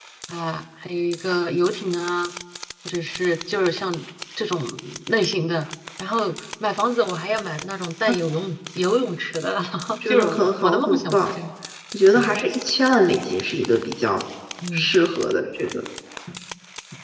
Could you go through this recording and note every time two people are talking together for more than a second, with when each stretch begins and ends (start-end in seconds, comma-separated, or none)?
10.1-11.3